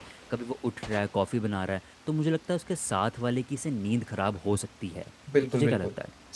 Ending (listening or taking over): taking over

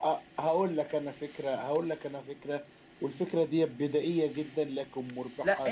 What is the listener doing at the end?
taking over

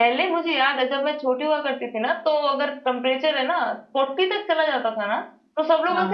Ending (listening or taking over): listening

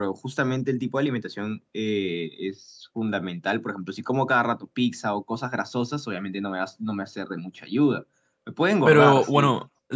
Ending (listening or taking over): taking over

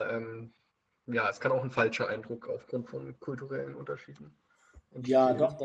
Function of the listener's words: taking over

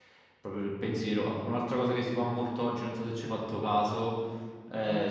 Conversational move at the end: listening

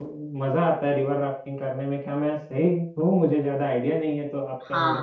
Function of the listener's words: taking over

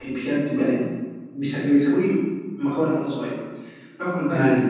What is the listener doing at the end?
listening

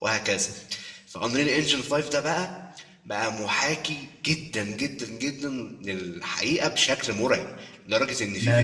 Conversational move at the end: taking over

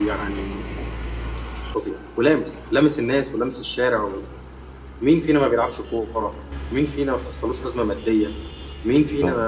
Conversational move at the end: listening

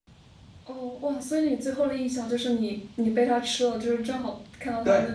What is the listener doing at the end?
taking over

